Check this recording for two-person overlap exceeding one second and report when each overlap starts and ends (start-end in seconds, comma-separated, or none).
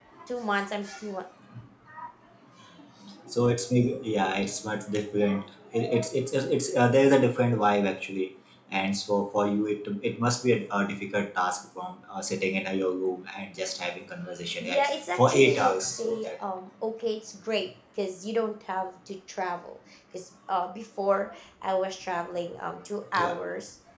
14.6-16.3